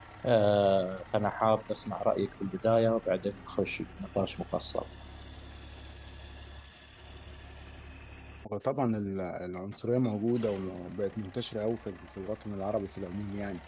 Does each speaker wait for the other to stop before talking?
Yes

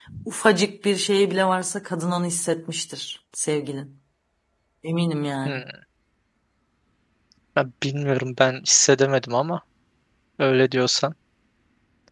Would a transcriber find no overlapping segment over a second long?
Yes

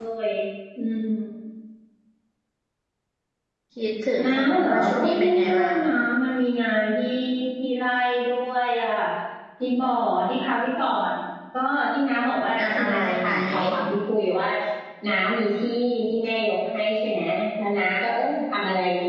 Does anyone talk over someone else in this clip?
Yes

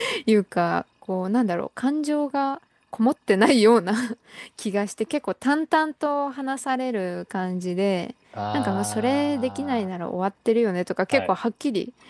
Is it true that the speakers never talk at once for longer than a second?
No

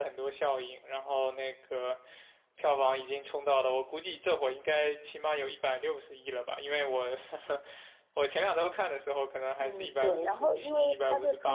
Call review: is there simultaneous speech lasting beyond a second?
Yes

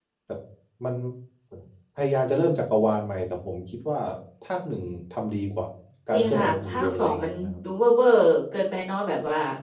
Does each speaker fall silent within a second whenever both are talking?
No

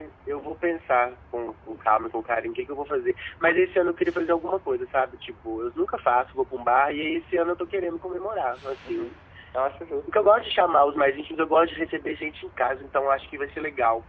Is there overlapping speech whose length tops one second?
No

